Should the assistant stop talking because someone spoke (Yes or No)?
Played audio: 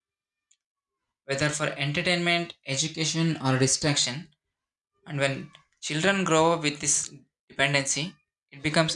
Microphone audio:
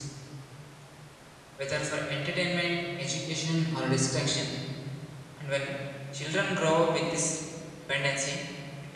No